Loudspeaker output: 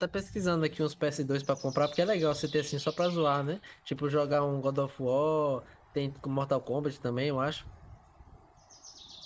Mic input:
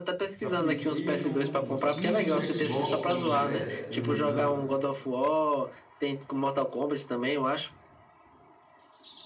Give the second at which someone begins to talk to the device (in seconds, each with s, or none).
0.4 s